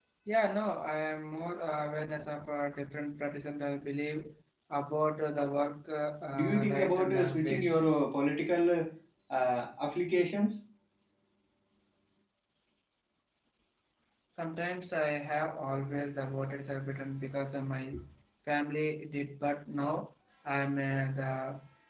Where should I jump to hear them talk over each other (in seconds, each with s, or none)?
6.3 s